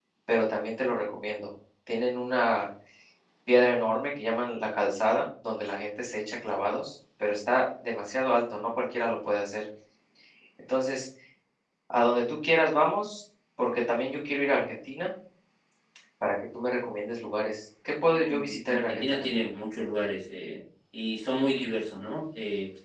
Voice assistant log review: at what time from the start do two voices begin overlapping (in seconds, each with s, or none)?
18.0 s